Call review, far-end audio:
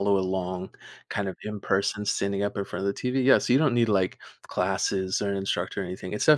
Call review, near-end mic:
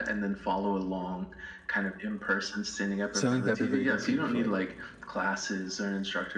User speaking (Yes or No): Yes